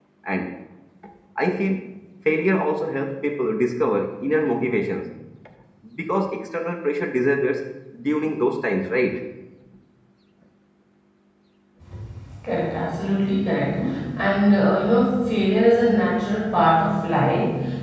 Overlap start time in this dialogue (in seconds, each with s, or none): none